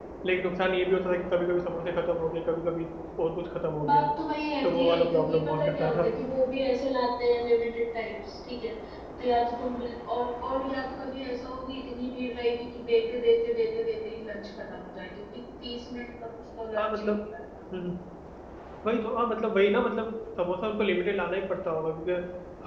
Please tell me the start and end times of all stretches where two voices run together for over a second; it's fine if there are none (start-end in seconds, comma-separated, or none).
4.6-6.1